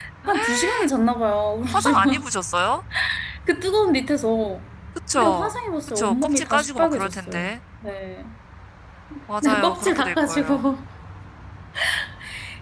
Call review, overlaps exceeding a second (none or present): present